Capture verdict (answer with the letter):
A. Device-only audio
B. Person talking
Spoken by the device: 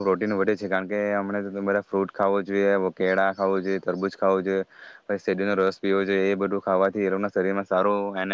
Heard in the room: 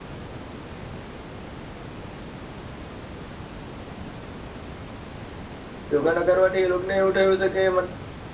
B